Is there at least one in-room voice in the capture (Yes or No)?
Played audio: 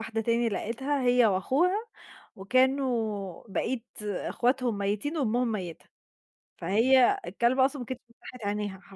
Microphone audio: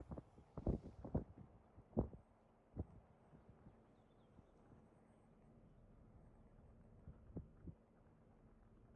No